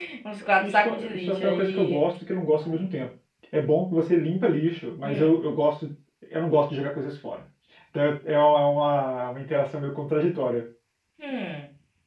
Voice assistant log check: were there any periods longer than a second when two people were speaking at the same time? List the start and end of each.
0.6-2.0

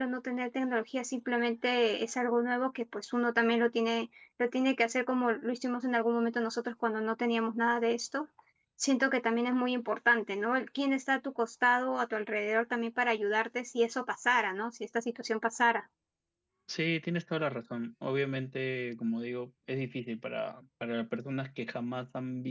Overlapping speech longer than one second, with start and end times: none

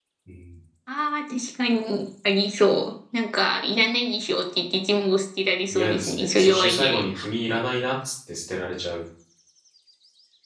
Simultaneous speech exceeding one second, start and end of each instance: 5.7-7.3

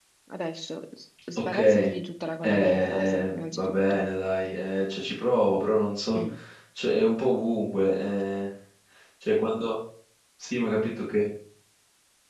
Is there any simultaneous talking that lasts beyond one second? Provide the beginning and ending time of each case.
2.4-4.1

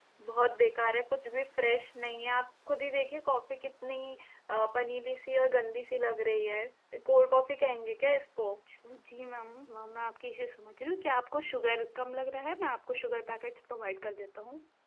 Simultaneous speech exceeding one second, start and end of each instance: none

